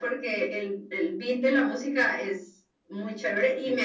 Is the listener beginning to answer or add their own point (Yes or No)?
No